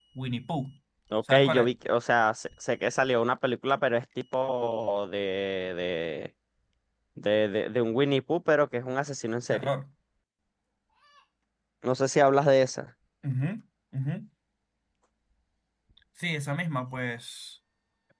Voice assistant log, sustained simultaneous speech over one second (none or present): none